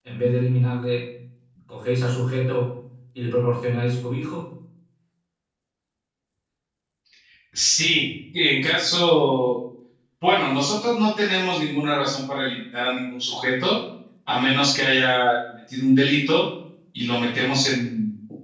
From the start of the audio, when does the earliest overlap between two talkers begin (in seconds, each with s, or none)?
none